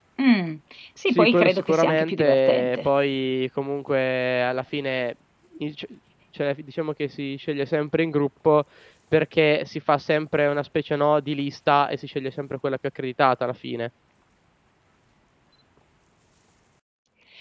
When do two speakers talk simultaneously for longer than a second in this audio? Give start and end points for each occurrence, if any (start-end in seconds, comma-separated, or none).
1.1-2.9